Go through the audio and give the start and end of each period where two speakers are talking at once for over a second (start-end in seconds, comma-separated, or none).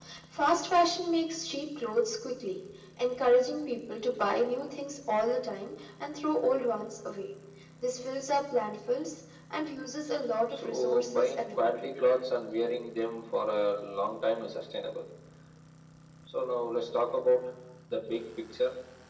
10.5-11.9